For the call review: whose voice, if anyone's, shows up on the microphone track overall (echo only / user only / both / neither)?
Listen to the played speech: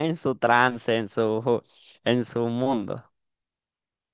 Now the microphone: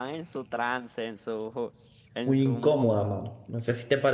both